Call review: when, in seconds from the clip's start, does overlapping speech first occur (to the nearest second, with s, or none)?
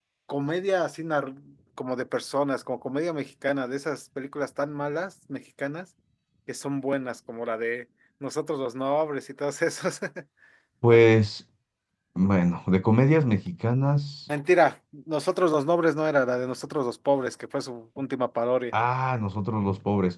none